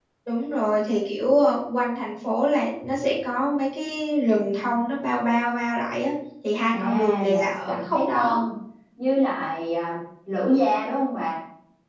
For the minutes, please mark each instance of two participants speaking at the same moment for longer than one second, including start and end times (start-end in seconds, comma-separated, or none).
6.7-8.4